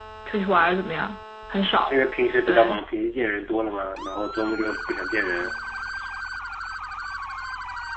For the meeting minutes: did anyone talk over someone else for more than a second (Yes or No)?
No